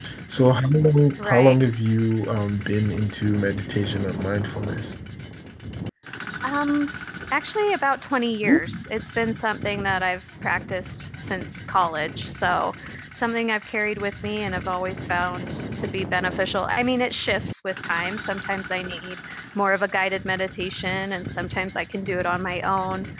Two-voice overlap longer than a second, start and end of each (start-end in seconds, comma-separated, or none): none